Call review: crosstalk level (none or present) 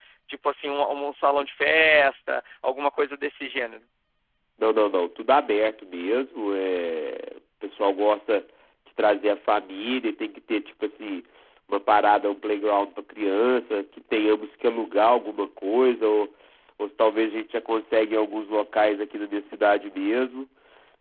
none